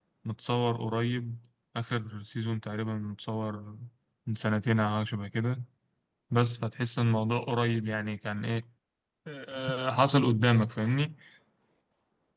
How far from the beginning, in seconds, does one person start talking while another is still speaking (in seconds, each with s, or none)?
none